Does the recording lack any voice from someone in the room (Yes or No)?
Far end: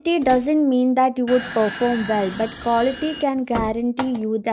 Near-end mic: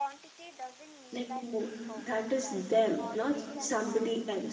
No